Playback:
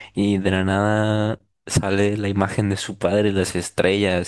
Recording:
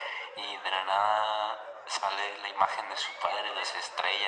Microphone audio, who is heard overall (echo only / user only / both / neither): echo only